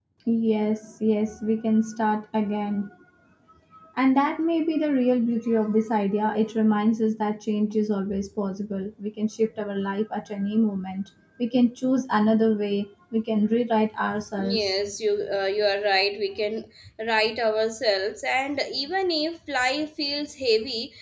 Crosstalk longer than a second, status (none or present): none